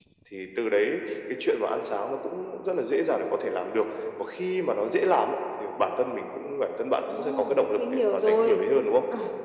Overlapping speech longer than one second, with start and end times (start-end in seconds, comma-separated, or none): 7.1-8.6